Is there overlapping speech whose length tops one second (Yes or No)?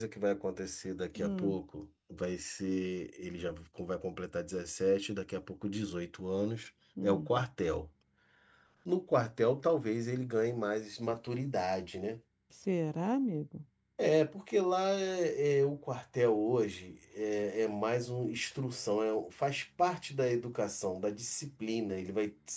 No